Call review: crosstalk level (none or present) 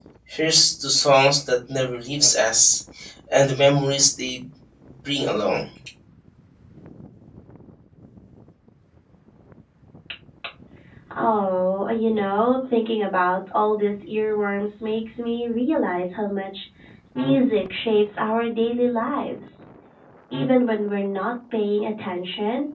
none